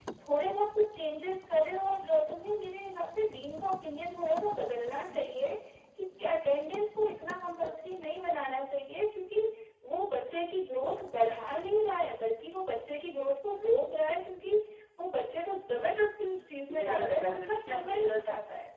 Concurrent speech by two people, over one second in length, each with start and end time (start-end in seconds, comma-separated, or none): 16.7-18.2